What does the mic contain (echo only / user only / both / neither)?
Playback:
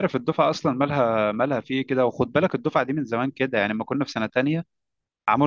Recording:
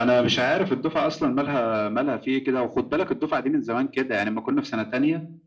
echo only